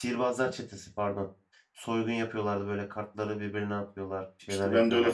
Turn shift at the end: Yes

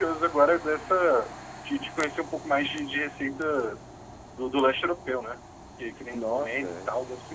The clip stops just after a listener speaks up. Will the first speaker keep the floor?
No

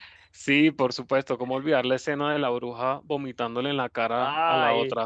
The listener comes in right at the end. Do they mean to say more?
Yes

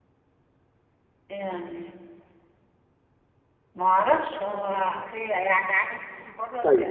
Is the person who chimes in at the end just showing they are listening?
No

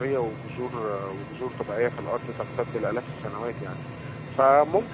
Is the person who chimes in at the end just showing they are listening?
Yes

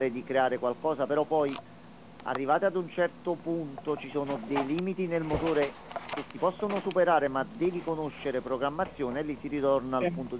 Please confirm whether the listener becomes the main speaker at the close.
No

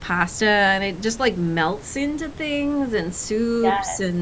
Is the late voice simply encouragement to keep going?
Yes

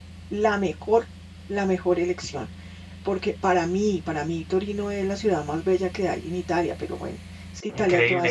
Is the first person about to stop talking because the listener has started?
Yes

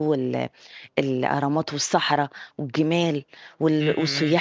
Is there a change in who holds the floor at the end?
No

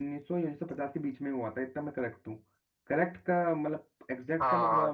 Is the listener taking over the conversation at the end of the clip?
Yes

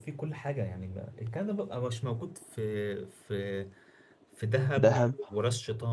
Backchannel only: Yes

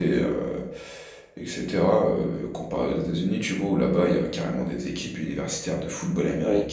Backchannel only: Yes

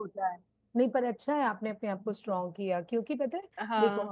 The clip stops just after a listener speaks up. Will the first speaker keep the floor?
Yes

